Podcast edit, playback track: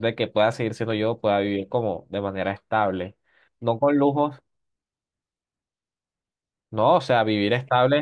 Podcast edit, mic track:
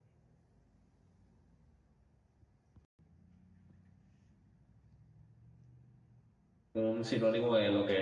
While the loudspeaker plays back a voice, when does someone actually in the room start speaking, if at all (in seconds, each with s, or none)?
6.7 s